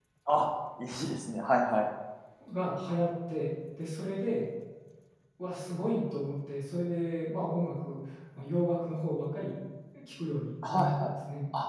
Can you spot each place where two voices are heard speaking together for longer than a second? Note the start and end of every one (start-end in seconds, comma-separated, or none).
none